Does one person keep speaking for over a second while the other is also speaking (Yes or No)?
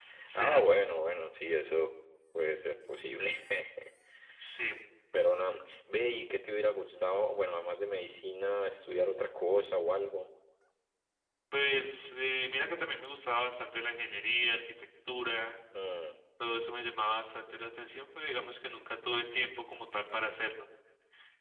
No